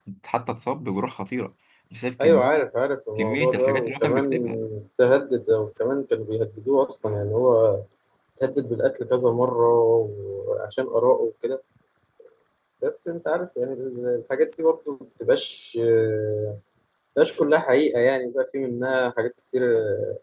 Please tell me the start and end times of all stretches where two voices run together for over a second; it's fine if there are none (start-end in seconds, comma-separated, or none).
3.2-4.5